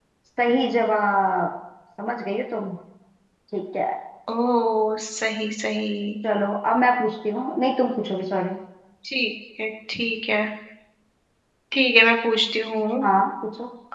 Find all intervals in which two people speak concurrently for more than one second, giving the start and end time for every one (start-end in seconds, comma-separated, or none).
none